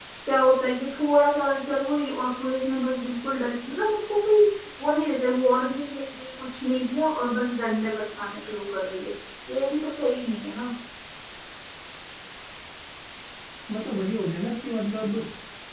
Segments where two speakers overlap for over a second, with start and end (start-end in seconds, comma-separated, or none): none